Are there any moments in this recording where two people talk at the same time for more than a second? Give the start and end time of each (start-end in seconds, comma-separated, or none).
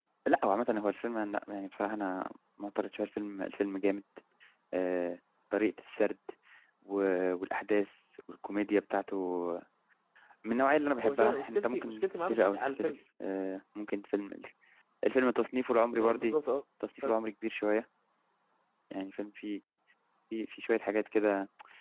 11.0-12.9